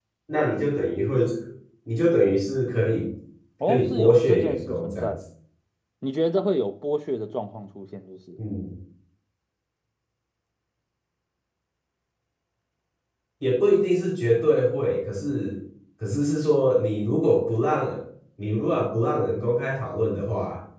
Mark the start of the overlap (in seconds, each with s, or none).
3.7 s